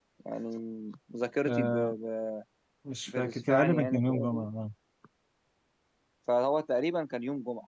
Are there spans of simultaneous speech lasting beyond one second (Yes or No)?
Yes